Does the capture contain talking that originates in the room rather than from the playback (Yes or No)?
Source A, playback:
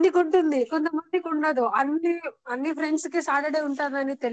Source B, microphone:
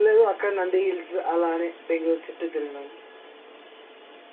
Yes